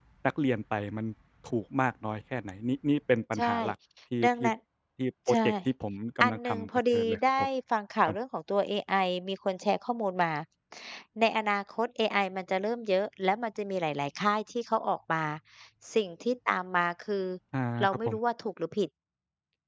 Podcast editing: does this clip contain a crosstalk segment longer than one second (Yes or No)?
Yes